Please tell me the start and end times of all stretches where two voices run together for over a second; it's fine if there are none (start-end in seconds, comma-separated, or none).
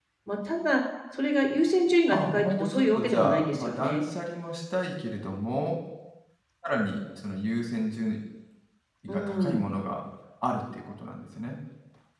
2.1-4.0